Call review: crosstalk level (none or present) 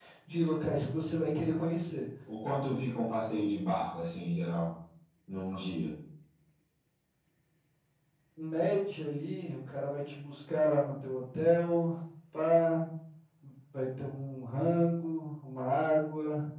none